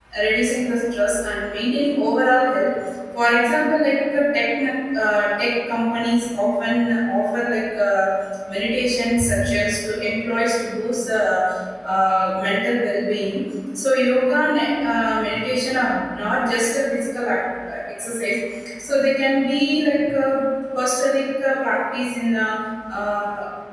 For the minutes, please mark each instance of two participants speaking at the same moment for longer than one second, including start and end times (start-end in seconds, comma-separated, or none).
none